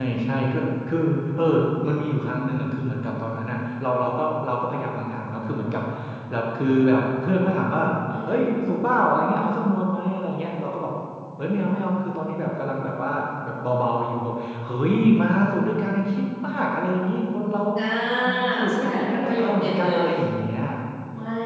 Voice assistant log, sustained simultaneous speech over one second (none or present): present